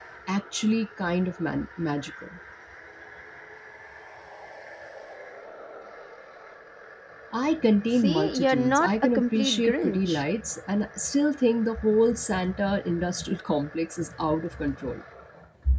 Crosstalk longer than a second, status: present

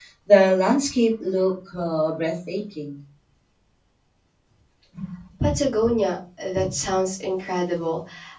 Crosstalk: none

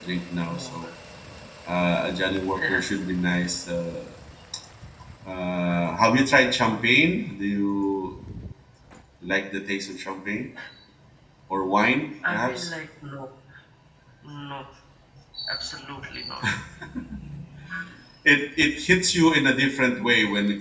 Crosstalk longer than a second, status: none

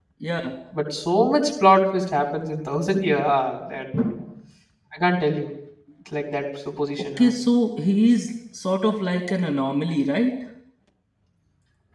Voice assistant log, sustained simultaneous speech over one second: none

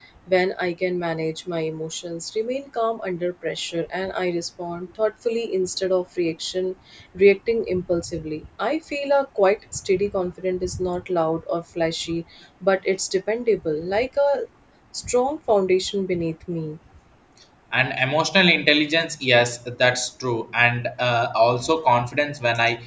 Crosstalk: none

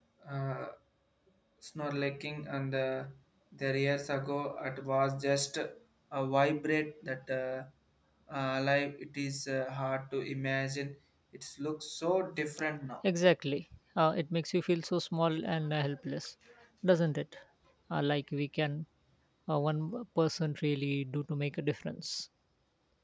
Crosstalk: none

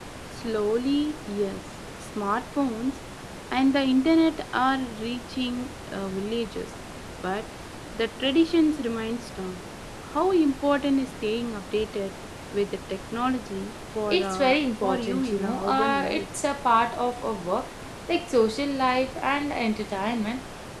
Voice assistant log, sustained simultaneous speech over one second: present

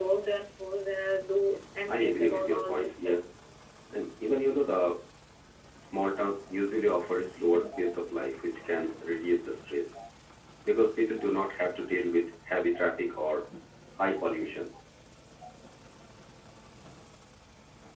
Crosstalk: present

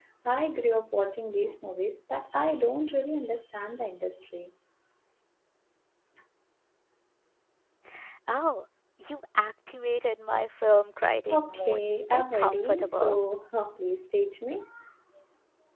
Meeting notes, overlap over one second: present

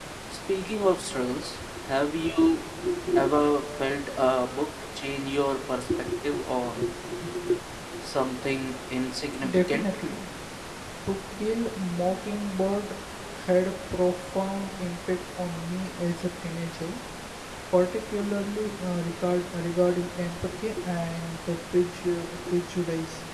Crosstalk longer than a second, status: none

